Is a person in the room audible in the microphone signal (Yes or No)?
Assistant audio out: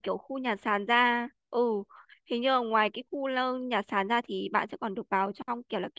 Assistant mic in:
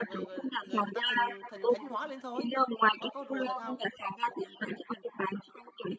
Yes